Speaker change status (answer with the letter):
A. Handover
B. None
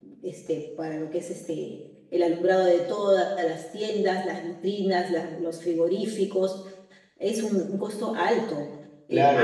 A